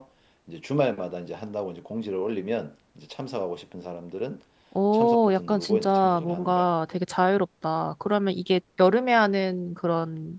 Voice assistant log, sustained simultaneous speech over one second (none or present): present